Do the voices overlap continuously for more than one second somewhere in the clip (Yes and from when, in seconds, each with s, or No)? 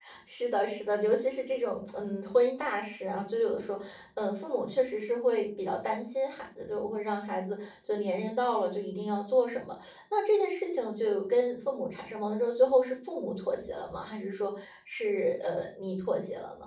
No